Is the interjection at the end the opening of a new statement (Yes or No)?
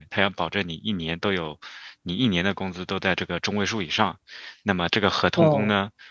No